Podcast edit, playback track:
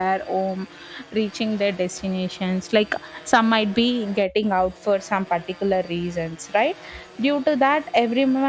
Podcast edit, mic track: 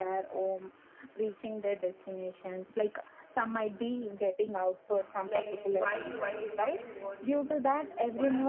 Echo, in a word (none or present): present